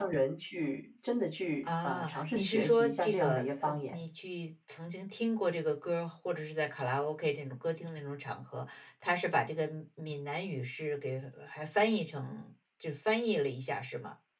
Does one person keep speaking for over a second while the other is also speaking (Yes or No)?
Yes